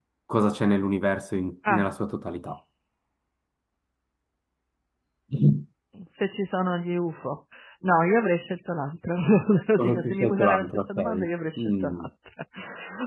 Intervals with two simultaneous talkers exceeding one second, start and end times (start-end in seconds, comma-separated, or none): 9.8-11.3